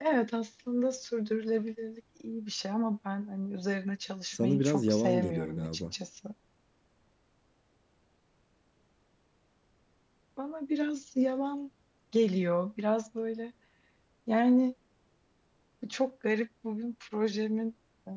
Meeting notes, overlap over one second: present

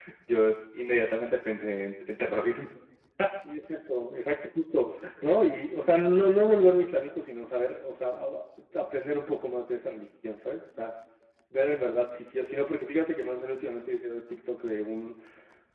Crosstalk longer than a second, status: none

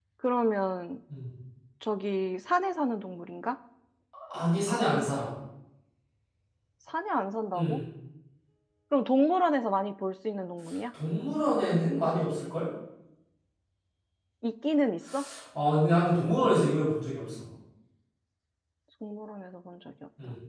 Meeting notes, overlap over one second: none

